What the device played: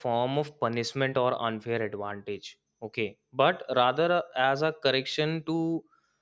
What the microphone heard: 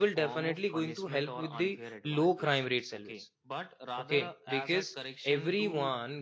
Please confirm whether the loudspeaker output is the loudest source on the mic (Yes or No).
No